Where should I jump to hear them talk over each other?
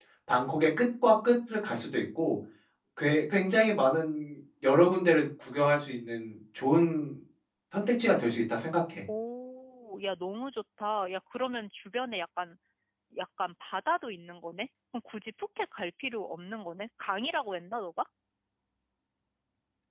none

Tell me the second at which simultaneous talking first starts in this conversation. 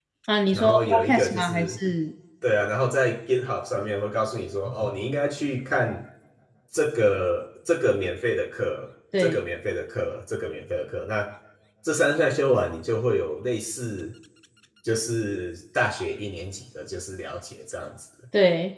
1 s

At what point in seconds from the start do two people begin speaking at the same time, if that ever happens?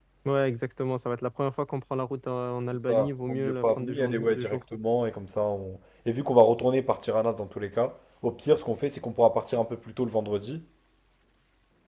3 s

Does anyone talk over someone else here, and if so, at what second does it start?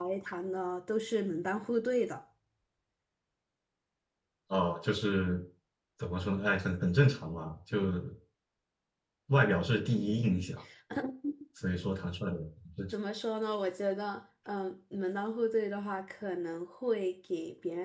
none

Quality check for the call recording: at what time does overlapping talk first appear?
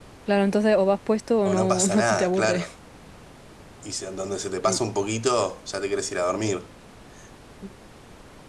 1 s

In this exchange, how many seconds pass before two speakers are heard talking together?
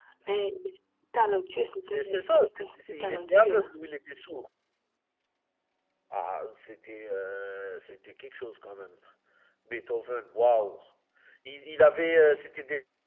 2 s

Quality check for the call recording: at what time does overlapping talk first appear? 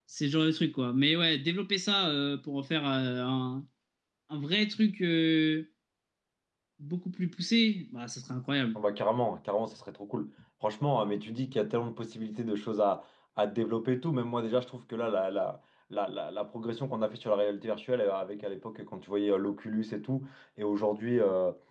none

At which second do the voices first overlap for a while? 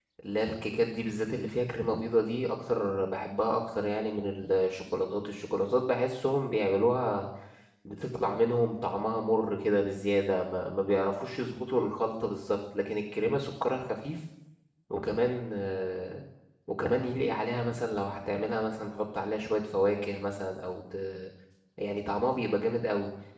none

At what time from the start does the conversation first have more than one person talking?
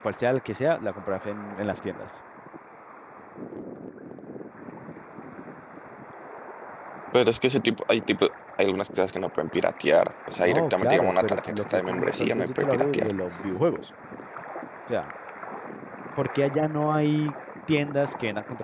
10 s

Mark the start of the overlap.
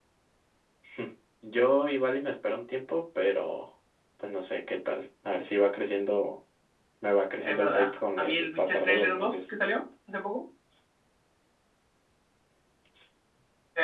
7 s

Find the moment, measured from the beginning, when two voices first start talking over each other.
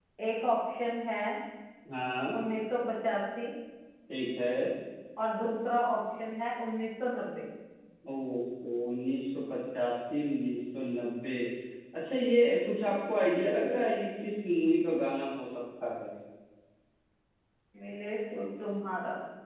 none

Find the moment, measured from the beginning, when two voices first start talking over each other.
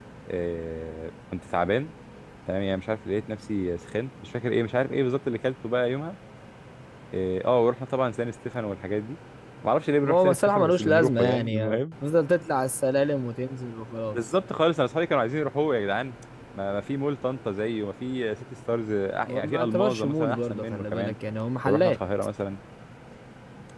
10 s

